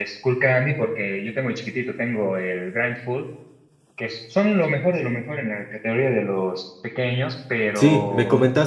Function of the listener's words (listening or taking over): taking over